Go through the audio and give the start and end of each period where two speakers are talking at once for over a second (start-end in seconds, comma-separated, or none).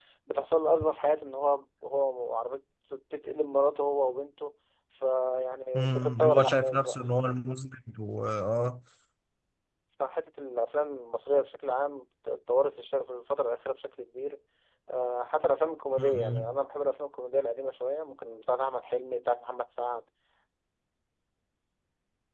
5.7-7.0